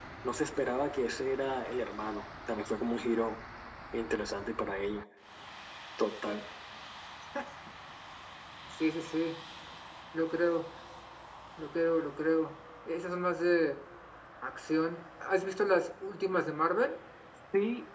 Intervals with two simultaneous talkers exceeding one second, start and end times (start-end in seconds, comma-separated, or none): none